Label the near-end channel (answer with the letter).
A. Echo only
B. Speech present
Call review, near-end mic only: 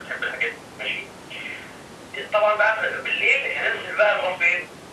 A